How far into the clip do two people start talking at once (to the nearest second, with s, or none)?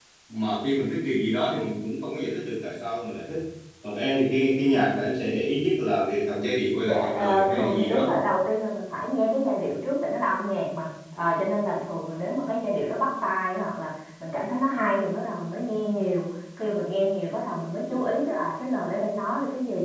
7 s